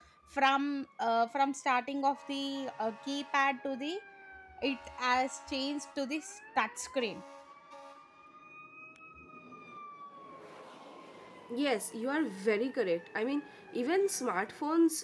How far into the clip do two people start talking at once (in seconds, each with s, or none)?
none